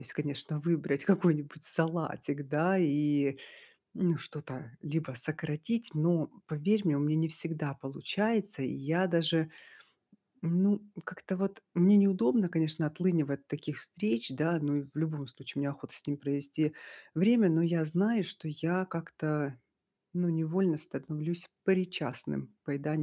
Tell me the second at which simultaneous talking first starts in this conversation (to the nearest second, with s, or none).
none